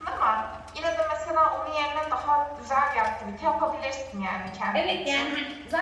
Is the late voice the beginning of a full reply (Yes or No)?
Yes